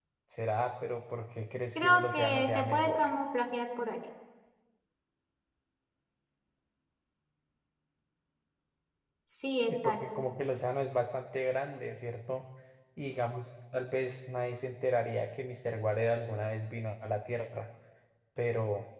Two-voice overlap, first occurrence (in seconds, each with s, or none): 1.8 s